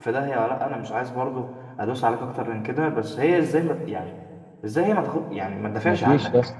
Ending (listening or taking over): taking over